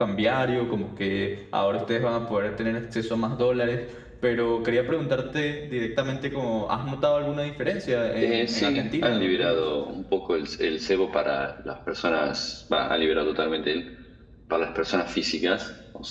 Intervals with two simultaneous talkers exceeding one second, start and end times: 8.2-9.6

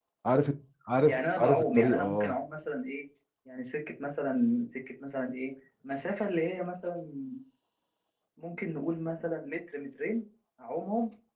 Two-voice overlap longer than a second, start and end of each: 1.1-2.4

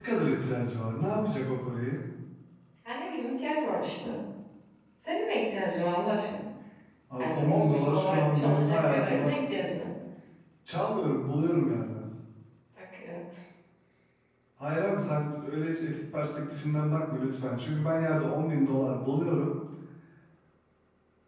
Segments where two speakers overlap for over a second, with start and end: 7.2-9.3

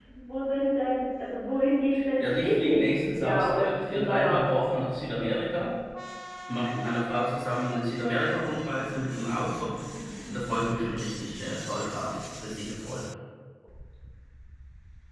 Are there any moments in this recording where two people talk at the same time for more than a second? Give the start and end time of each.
2.3-4.4

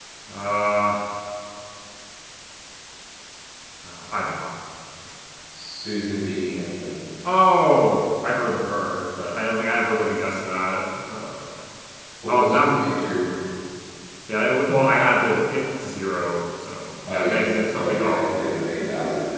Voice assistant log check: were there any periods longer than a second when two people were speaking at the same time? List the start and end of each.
17.1-18.6

